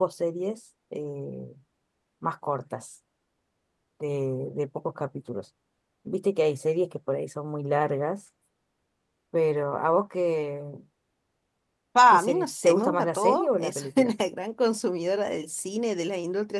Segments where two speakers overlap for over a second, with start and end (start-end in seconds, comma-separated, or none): 12.1-14.1